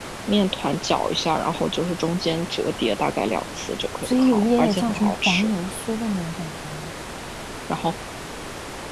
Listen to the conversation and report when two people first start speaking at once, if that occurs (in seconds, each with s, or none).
4.0 s